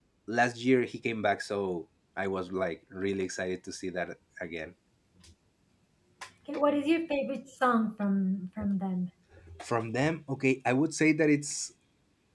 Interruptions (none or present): none